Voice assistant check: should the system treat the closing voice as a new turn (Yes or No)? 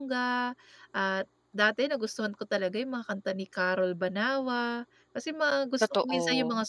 No